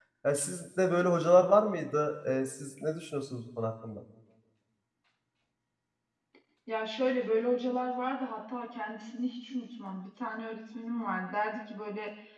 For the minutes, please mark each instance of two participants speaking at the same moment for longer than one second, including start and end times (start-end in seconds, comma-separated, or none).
none